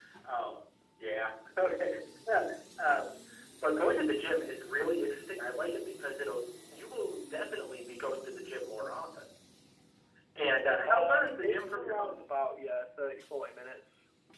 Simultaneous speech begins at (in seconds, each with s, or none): 10.9 s